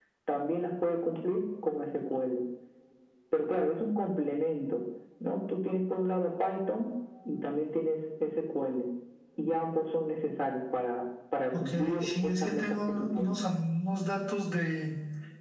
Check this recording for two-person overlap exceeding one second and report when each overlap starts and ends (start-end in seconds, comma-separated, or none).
11.5-13.4